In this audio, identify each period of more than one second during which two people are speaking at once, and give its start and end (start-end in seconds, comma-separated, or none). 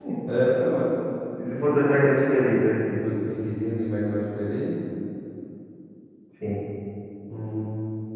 none